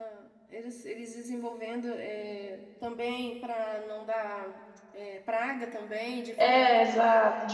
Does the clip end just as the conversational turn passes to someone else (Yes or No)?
Yes